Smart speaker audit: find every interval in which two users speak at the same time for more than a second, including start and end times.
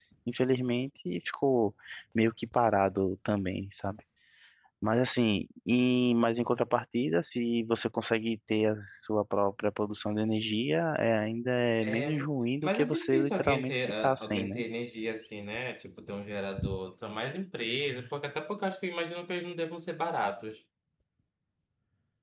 12.6-14.6

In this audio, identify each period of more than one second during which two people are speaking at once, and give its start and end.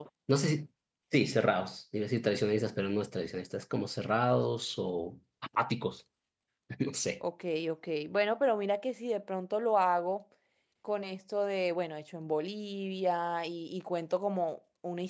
none

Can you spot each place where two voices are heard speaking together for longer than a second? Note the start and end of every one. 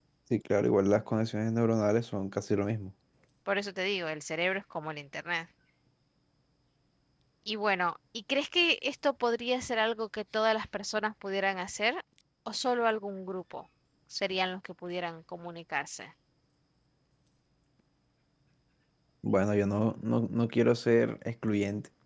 none

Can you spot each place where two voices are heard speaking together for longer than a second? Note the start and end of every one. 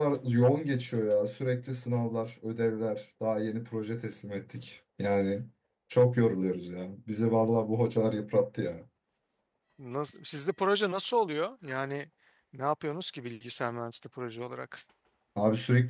none

